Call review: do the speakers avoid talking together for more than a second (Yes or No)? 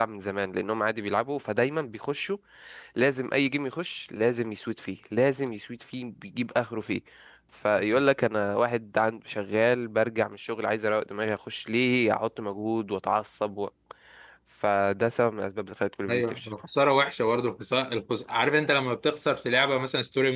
Yes